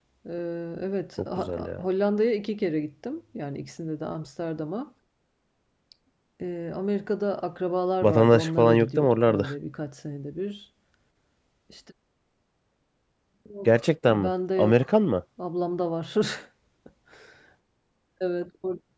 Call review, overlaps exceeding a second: present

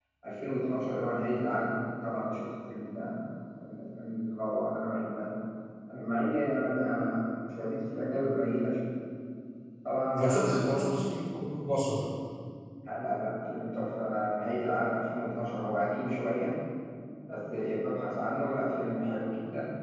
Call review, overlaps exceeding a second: none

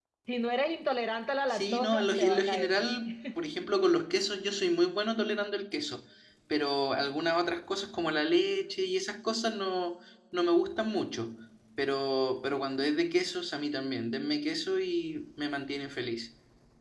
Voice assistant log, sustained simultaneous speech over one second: present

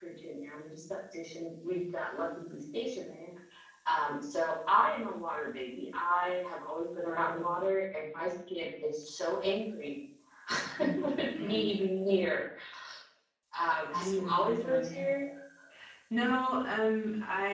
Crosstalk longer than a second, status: present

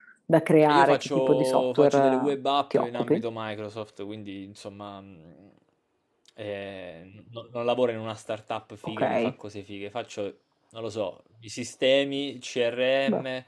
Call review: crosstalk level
present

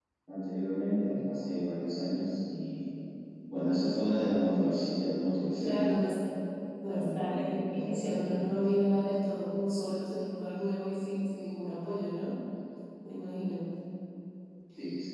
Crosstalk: present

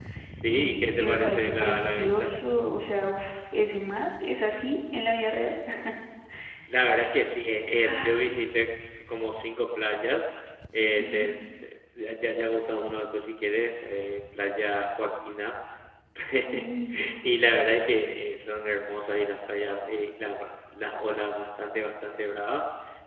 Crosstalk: present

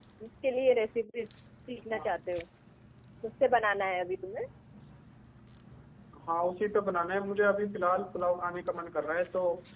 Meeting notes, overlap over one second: none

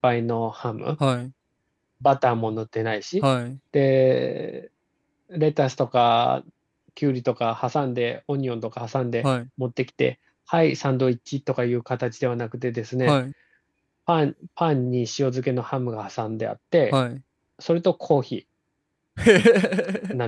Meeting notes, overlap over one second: none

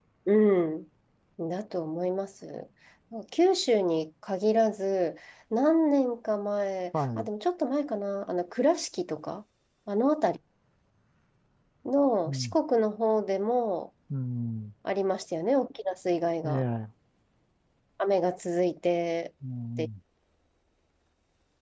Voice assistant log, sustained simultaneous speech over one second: none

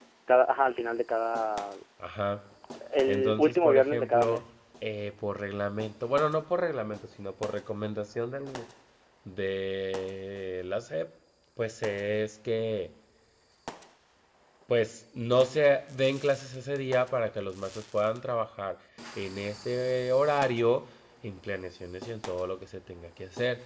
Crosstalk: present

